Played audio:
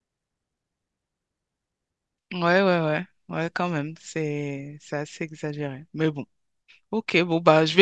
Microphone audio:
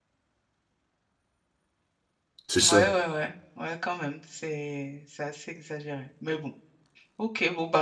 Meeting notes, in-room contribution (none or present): present